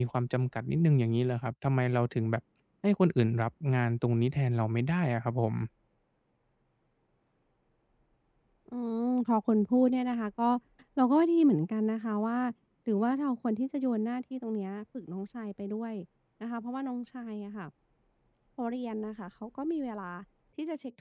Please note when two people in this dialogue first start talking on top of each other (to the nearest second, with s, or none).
none